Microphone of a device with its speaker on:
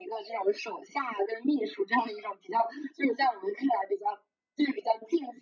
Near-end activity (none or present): none